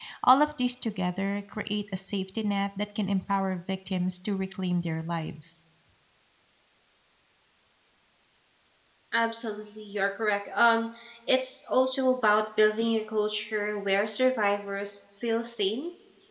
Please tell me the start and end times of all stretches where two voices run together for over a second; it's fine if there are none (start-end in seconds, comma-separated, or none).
none